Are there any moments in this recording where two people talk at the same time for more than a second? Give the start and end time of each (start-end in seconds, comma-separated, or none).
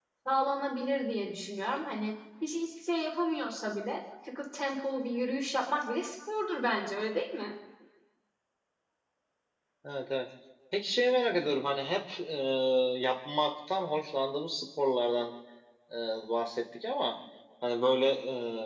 none